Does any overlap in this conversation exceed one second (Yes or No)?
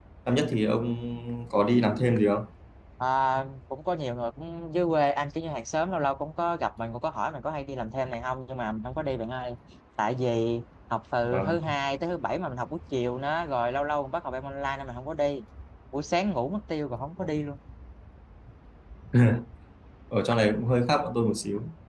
No